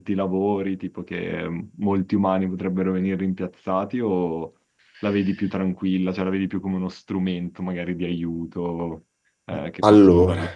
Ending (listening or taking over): taking over